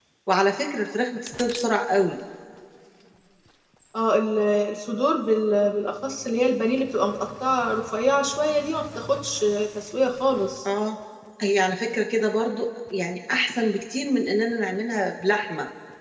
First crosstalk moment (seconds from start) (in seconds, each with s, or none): none